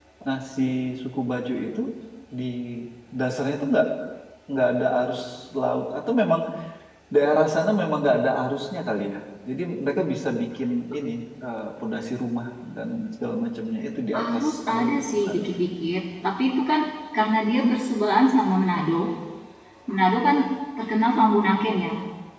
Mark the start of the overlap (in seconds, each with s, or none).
14.1 s